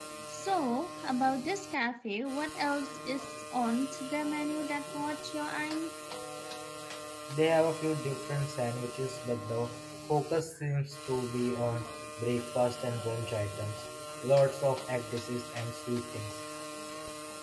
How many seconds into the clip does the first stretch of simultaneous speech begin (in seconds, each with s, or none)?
none